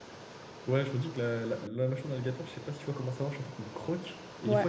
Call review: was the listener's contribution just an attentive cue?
Yes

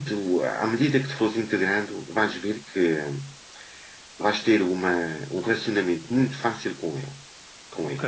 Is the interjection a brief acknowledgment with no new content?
No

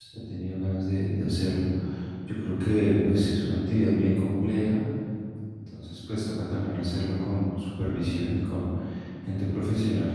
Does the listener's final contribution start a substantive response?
No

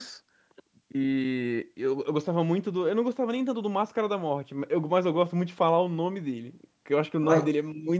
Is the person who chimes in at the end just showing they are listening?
Yes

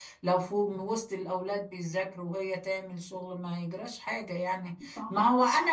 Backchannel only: Yes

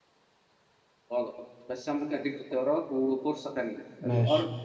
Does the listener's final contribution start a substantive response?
No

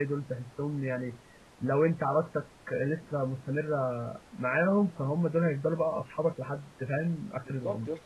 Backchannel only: No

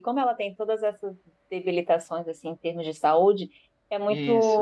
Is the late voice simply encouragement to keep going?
Yes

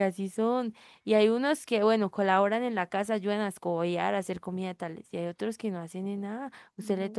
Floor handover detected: No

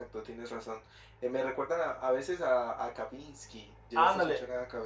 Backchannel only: No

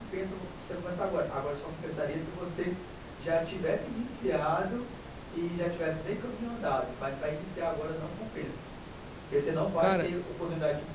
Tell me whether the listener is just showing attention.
Yes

